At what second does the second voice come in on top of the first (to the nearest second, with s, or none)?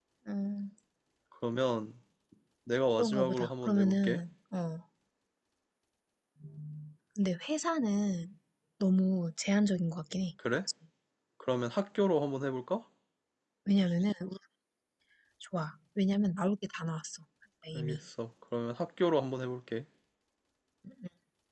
3 s